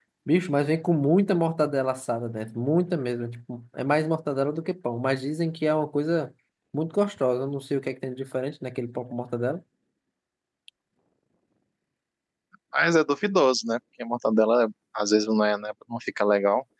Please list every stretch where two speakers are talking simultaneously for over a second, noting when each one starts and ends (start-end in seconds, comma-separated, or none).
none